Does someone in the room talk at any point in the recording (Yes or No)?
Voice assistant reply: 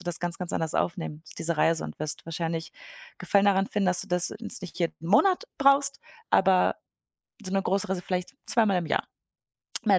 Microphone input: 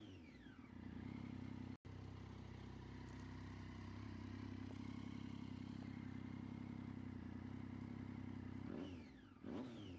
No